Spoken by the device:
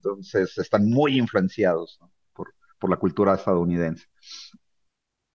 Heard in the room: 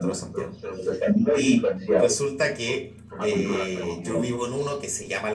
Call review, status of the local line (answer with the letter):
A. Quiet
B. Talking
B